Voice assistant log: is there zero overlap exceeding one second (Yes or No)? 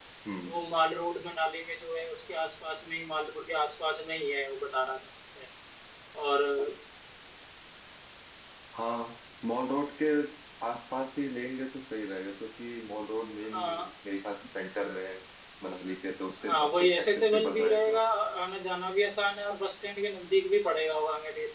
No